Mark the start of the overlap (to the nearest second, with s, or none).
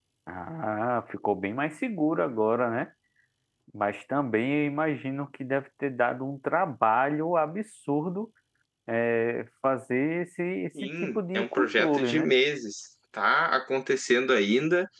11 s